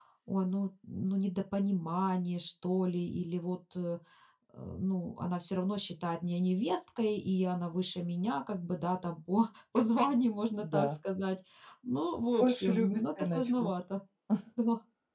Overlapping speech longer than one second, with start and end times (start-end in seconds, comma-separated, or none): 12.4-13.7